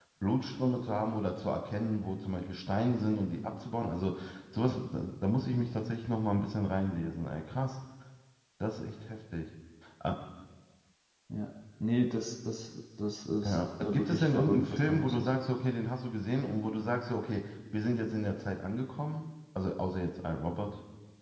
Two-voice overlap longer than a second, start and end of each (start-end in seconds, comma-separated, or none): 13.4-15.3